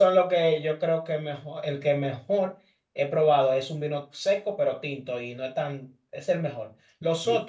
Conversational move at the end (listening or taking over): listening